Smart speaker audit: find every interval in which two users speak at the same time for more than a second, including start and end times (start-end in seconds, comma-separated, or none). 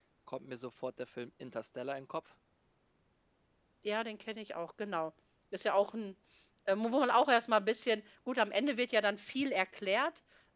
none